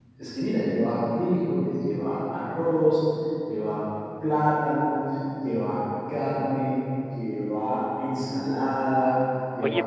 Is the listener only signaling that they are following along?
No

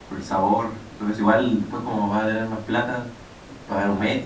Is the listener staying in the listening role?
No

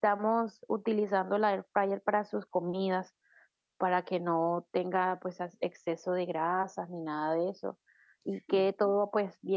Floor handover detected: No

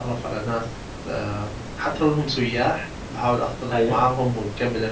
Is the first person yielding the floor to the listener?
No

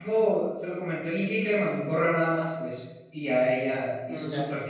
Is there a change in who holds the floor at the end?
Yes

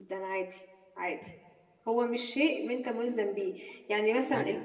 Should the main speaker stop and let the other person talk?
No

